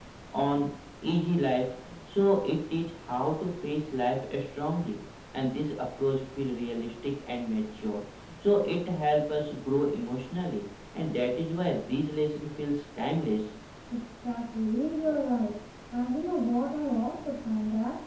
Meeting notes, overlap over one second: none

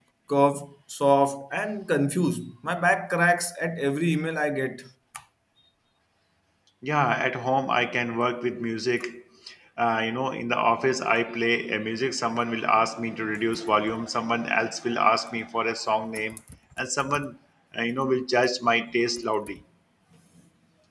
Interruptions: none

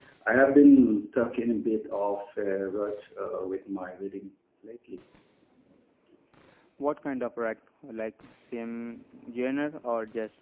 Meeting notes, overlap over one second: none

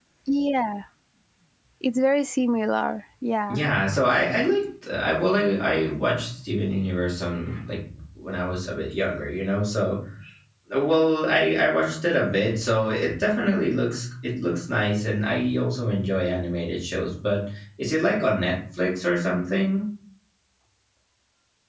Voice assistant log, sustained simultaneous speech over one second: none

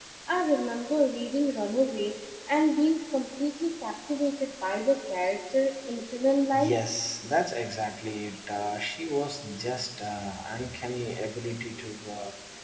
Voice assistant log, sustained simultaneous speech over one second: none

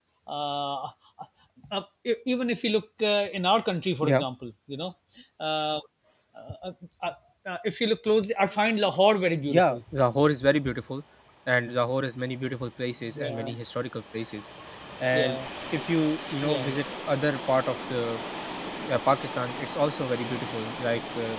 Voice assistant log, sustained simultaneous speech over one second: none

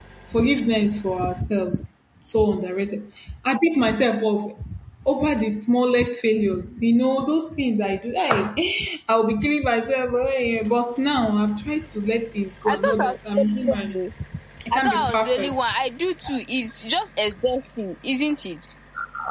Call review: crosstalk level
present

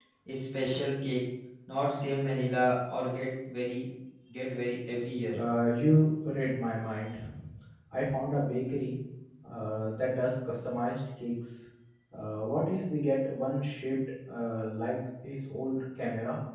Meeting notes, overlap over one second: none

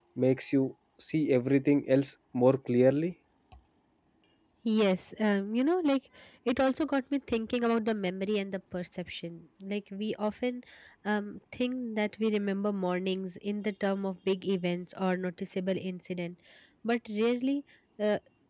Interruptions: none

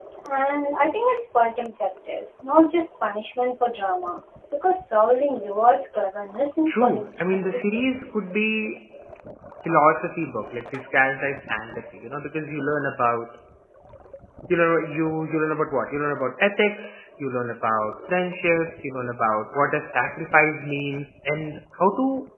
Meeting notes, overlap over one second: present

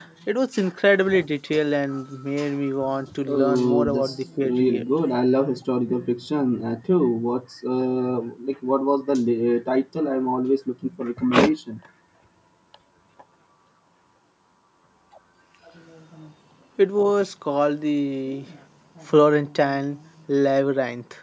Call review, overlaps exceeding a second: present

